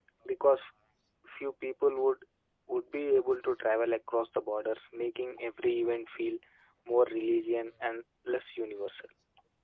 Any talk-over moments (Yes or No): No